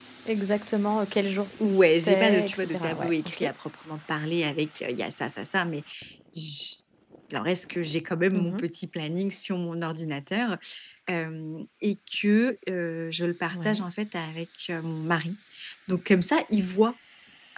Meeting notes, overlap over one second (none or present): present